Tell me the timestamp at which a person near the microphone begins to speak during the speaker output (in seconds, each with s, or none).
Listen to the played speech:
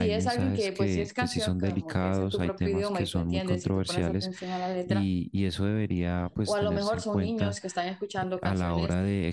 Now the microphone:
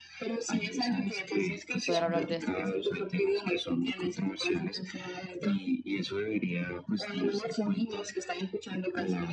1.8 s